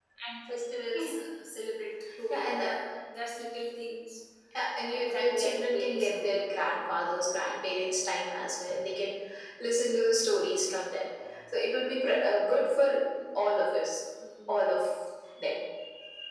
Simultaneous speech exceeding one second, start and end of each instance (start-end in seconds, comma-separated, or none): 4.9-6.3